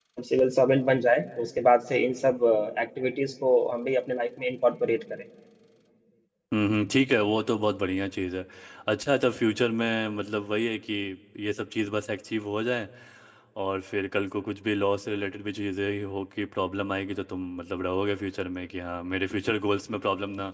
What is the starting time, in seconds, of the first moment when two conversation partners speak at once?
none

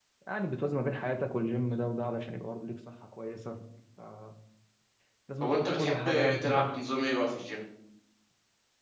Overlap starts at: 6 s

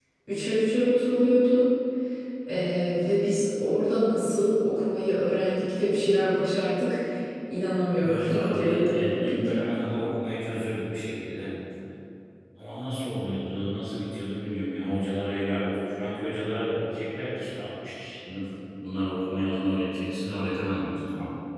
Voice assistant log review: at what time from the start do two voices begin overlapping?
8 s

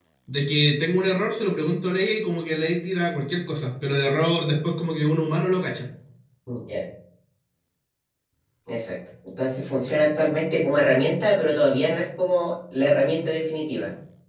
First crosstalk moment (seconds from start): none

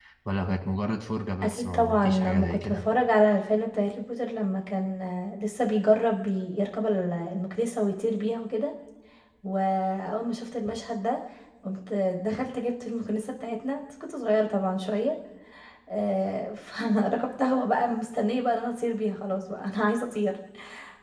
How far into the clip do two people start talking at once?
1 s

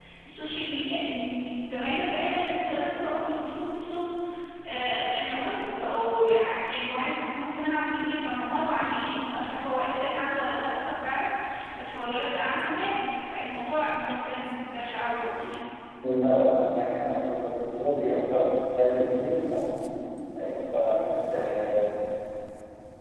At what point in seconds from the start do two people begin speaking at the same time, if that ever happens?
none

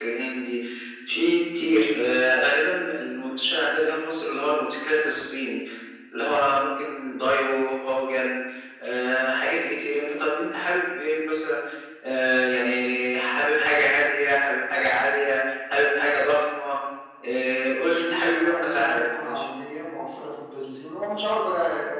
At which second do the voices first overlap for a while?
18 s

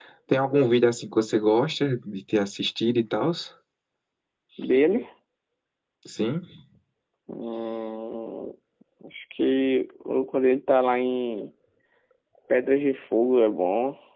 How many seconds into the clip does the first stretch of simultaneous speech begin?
none

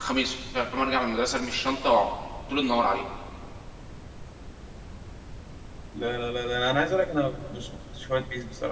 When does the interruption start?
none

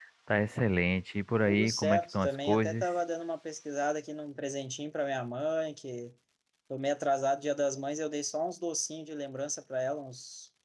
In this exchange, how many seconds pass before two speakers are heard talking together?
1 s

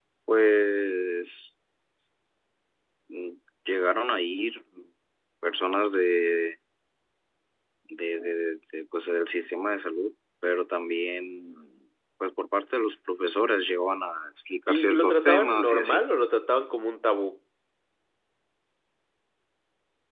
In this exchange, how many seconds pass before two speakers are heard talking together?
15 s

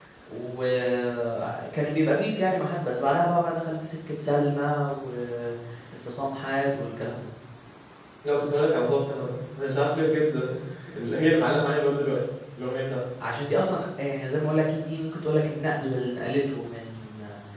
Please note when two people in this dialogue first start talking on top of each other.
none

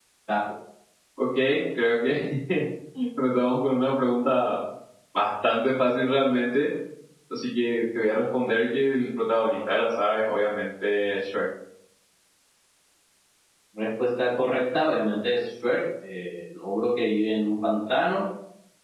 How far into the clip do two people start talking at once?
none

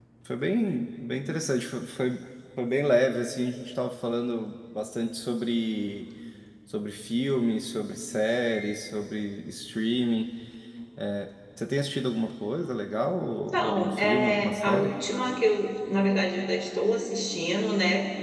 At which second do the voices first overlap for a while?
13 s

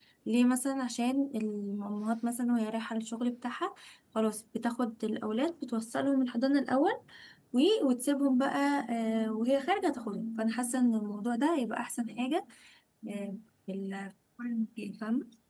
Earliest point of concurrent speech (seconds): none

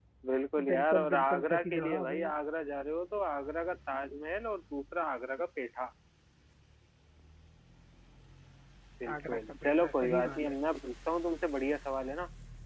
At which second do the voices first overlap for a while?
1 s

